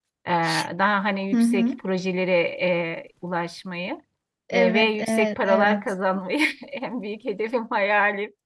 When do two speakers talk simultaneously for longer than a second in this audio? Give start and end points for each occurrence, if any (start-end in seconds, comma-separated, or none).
4.5-5.8